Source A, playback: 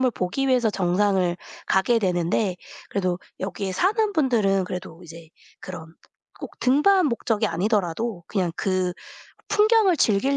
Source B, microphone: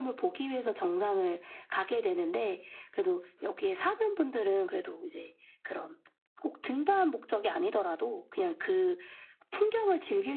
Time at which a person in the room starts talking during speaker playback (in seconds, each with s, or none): none